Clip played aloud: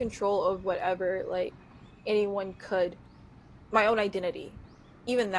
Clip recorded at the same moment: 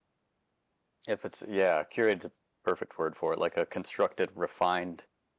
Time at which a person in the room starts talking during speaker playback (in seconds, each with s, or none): 1.1 s